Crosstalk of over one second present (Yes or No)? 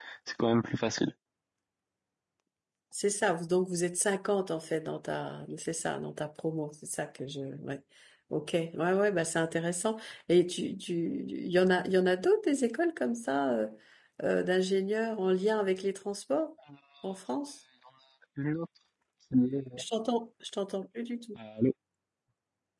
No